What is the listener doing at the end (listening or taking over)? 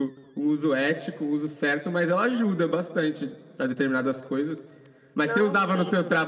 listening